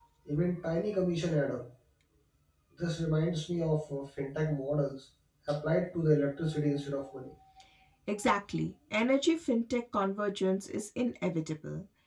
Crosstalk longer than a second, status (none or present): none